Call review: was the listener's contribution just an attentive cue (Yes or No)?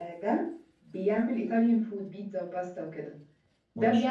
Yes